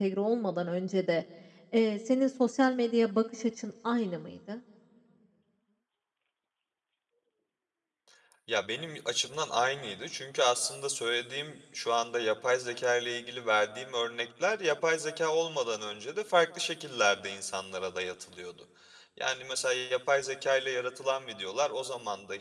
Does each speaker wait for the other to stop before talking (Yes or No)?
Yes